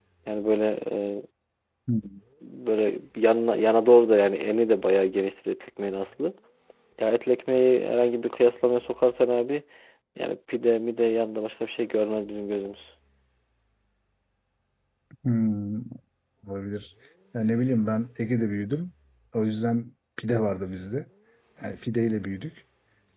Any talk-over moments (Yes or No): No